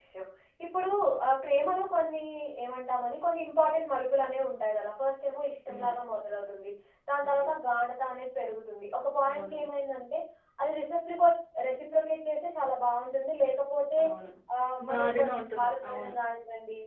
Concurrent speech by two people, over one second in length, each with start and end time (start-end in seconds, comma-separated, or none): 14.9-16.1